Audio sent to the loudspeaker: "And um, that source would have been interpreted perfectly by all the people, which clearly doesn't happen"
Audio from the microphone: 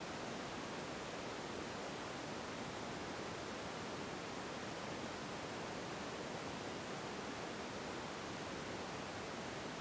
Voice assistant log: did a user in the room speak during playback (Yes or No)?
No